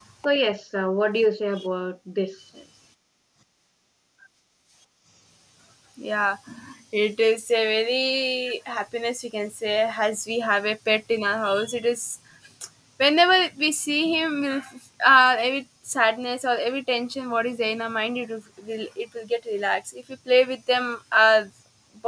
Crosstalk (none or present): none